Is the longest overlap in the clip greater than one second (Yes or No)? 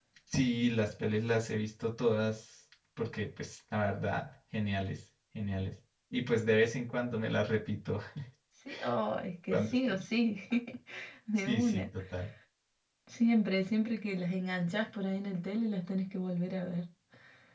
No